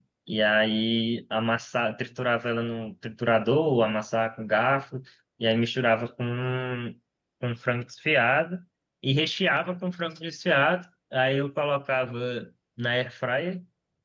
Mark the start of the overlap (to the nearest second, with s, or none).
none